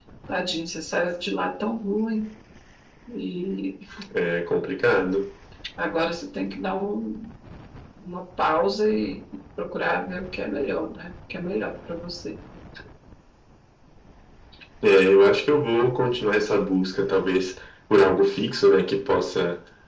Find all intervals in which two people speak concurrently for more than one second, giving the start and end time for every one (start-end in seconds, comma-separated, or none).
none